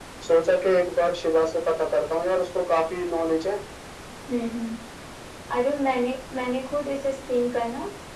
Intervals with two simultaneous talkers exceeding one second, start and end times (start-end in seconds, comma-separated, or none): none